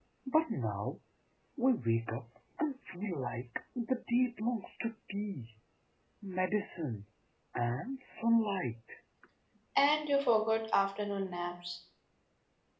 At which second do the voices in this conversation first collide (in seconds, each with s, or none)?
none